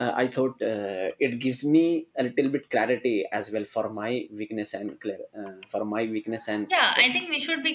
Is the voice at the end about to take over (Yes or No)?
Yes